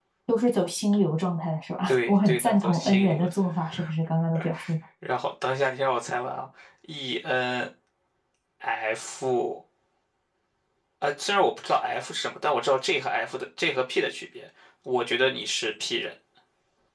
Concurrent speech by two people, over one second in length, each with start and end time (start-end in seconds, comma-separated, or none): 1.9-3.3